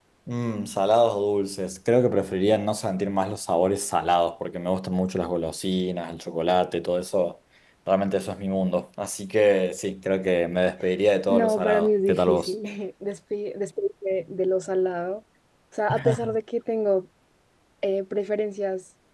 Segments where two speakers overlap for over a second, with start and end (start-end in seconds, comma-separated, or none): 11.3-12.5